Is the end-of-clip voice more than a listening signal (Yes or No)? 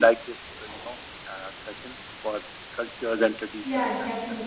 Yes